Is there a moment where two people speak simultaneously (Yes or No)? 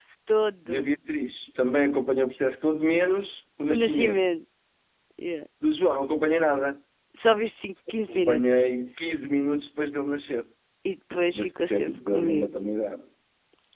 Yes